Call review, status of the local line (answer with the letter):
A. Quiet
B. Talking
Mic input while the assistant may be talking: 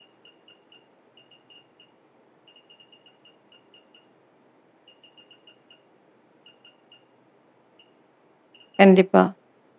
B